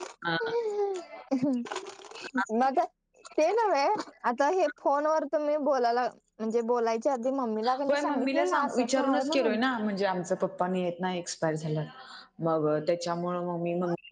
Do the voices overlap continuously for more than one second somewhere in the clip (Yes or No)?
Yes